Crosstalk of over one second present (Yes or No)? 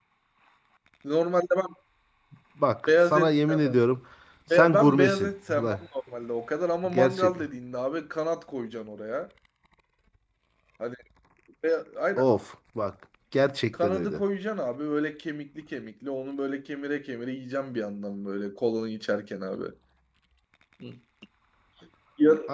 Yes